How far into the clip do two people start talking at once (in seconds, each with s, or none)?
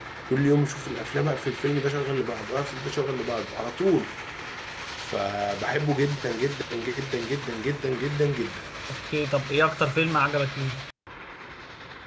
none